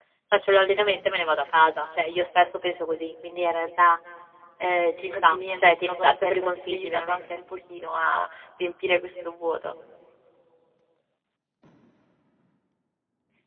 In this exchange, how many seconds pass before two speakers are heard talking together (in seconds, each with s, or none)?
5.1 s